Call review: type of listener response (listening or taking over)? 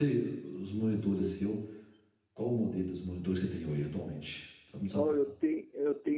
taking over